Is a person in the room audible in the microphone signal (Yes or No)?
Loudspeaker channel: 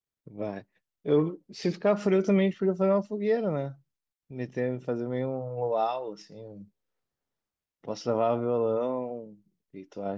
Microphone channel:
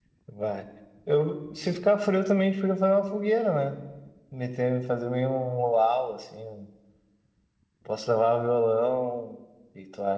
No